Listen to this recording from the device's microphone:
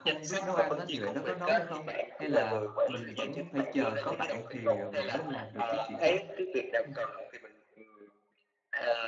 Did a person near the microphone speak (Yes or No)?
Yes